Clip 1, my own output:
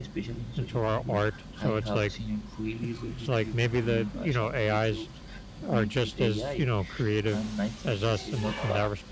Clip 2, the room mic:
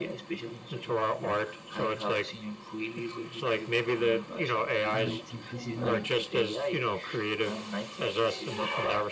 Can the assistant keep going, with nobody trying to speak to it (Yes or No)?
No